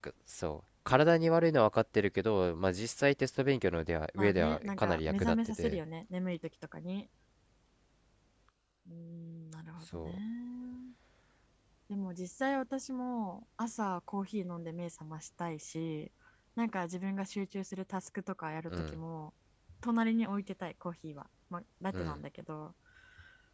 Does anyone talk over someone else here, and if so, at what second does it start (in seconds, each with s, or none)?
4.2 s